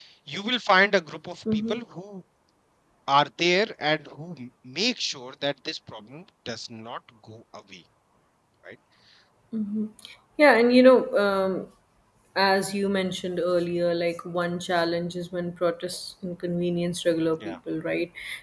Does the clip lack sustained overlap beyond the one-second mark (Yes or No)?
Yes